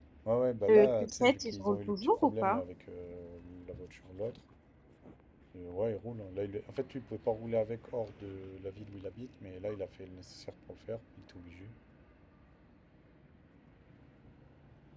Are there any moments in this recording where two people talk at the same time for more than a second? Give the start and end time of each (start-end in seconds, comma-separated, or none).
0.7-2.6